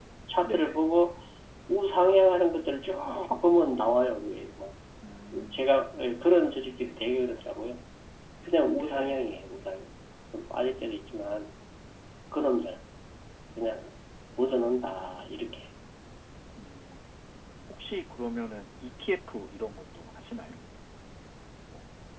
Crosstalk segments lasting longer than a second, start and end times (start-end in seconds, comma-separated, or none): none